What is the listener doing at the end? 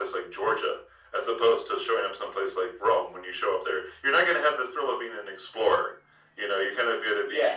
listening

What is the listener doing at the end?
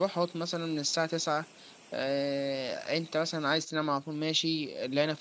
listening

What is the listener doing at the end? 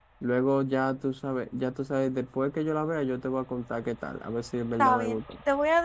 taking over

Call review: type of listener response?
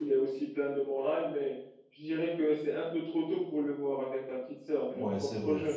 taking over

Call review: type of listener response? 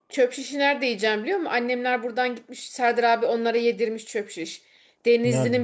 listening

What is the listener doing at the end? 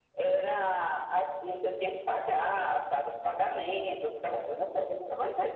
taking over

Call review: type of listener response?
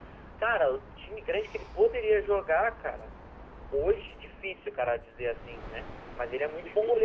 listening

